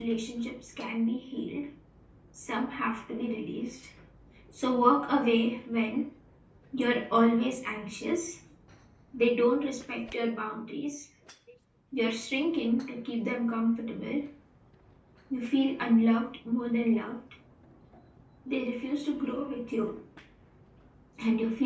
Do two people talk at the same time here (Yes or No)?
No